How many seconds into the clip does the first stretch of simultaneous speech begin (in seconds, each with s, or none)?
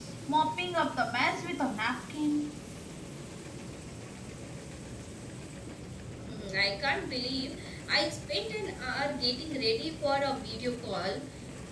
none